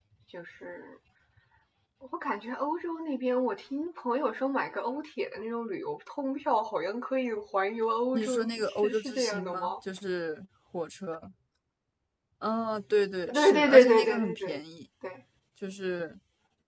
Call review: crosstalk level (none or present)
present